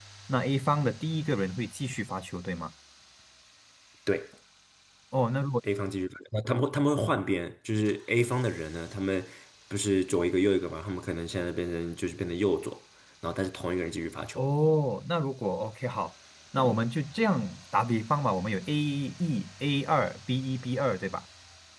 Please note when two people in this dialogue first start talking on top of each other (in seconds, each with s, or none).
none